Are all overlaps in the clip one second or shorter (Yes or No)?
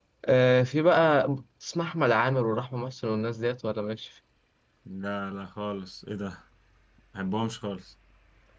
Yes